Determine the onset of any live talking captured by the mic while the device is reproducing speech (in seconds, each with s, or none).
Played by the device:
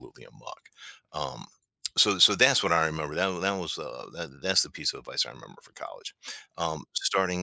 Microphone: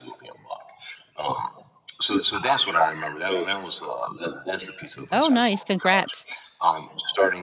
5.1 s